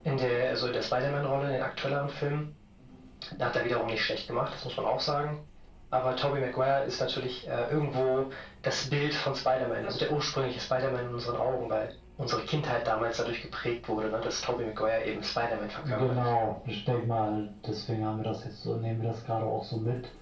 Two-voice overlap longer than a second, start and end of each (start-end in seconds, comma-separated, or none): none